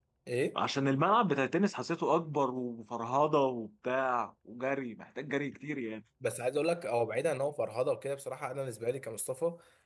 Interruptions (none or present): none